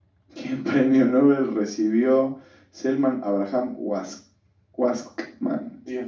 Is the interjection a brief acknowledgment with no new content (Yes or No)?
No